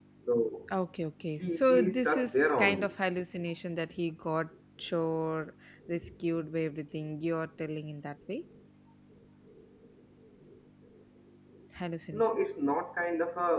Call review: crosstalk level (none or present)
present